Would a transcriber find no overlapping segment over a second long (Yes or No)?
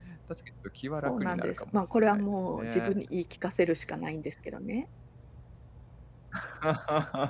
No